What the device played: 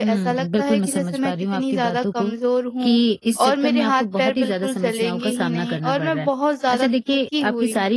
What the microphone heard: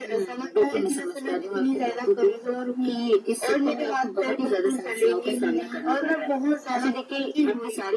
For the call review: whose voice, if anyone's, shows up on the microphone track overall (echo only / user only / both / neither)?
echo only